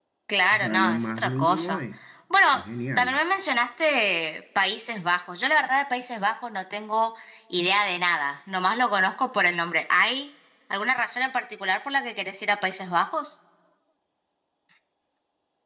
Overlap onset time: 0.5 s

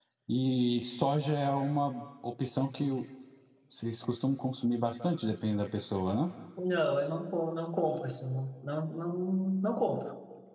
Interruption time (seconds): none

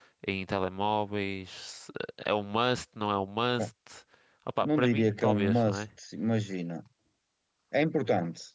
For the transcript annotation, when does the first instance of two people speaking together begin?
4.6 s

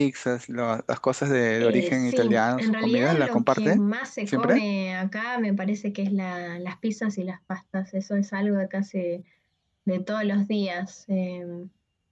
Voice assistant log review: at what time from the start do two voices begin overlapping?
1.6 s

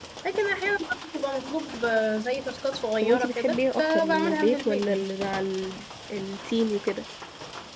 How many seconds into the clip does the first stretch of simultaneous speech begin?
3.0 s

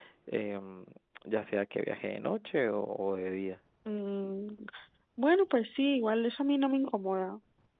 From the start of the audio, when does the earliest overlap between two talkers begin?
none

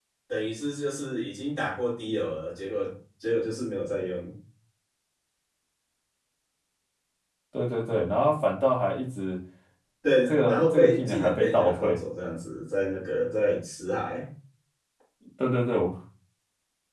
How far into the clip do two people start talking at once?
10.3 s

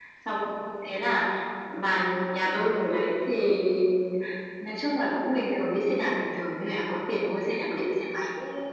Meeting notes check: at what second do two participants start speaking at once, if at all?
none

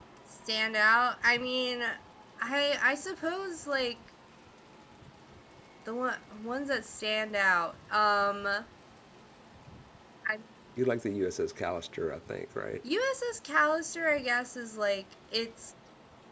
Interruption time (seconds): none

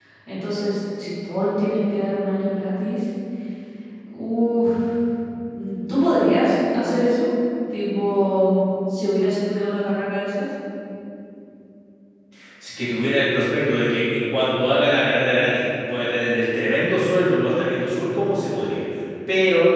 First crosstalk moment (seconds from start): none

